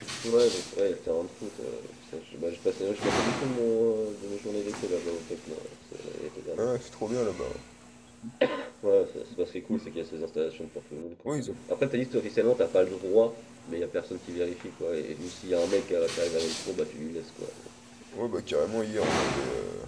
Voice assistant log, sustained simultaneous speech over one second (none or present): none